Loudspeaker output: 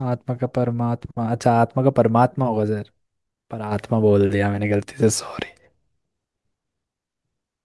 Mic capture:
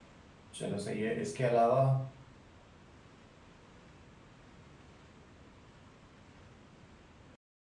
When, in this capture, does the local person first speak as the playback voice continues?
0.6 s

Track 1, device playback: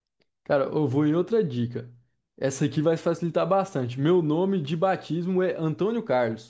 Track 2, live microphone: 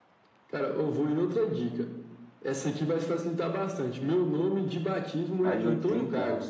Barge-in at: 5.4 s

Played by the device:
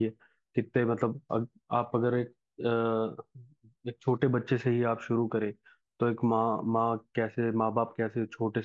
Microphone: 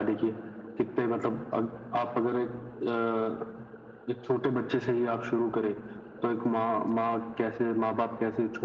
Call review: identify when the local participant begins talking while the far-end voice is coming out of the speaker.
none

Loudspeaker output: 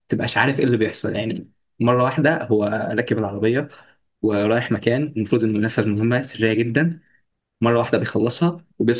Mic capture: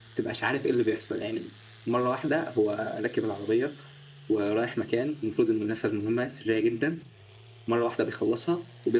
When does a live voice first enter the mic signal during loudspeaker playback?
none

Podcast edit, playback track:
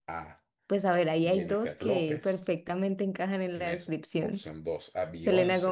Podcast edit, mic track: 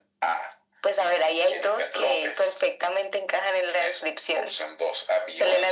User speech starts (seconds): none

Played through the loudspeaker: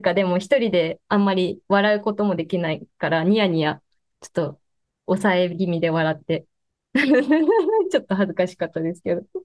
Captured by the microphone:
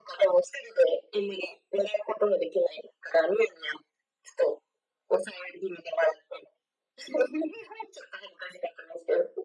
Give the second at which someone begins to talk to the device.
none

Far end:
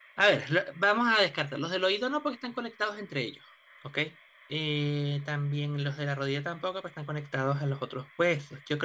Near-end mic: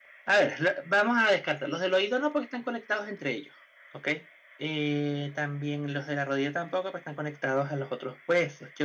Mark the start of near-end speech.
none

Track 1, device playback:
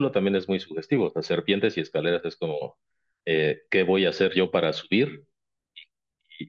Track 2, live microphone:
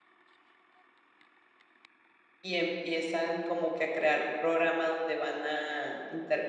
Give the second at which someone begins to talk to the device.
2.4 s

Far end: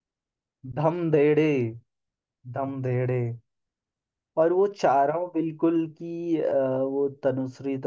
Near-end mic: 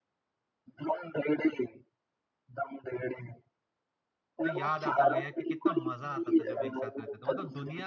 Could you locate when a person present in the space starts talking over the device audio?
4.4 s

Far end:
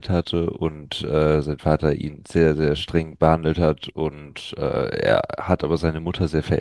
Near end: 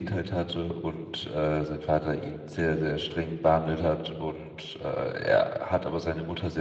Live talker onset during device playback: none

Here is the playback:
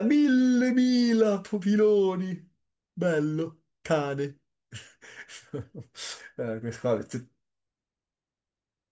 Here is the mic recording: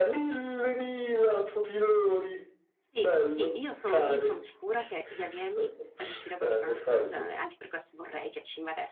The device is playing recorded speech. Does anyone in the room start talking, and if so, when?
2.9 s

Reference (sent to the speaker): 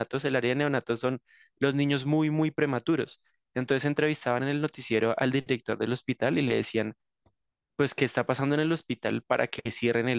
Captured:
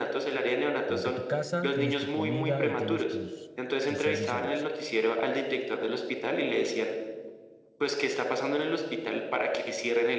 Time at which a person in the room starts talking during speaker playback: 0.8 s

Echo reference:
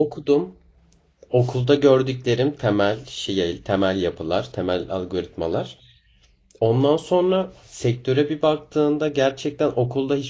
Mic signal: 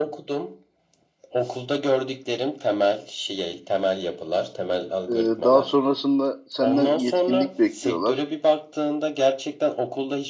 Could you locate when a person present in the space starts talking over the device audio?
5.1 s

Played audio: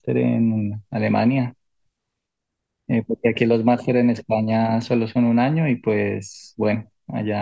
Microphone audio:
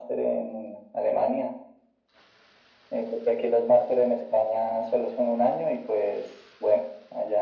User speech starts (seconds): none

